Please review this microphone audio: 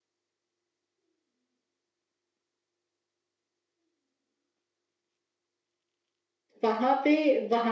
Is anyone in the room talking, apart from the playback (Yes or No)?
Yes